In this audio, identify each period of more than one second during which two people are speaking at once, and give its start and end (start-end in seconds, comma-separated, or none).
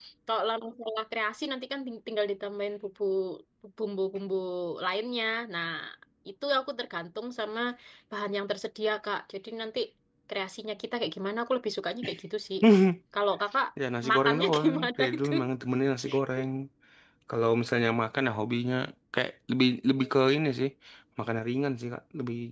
14.1-15.3